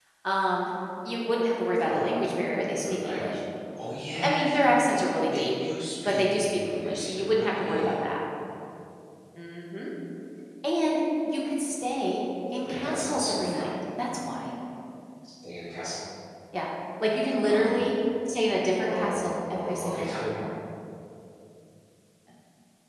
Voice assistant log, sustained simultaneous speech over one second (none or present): present